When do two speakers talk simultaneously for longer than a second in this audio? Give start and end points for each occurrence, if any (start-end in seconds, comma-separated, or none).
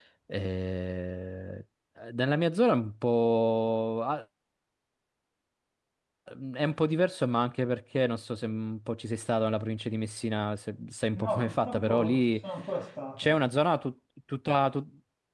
11.2-12.4